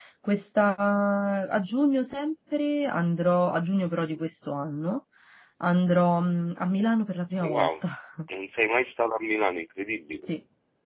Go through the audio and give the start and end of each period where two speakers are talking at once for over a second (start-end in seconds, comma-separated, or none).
none